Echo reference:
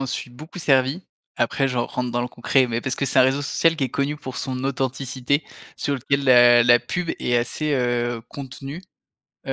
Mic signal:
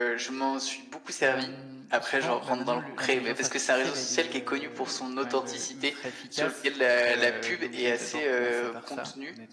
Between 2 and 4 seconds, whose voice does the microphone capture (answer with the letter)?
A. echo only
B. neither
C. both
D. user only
C